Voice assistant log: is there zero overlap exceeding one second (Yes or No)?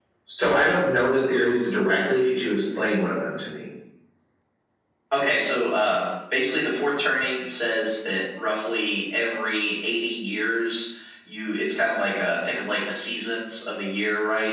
Yes